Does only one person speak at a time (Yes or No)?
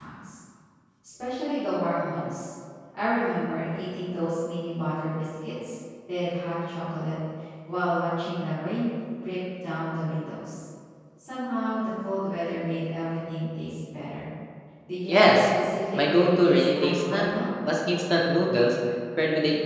No